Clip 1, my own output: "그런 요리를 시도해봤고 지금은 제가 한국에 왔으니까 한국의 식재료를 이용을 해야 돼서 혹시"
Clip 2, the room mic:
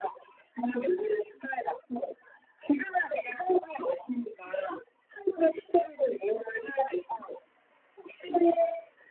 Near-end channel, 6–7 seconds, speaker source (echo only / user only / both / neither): echo only